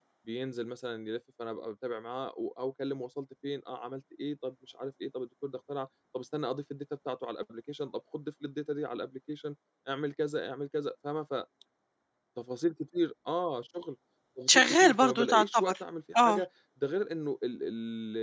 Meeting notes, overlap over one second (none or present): present